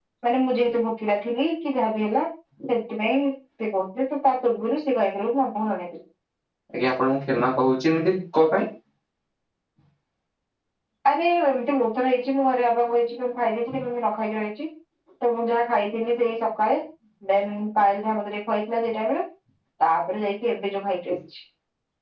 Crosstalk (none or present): none